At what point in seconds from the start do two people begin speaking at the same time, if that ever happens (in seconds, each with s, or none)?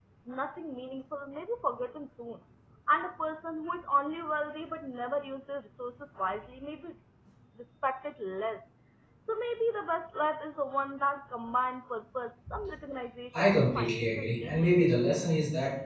13.4 s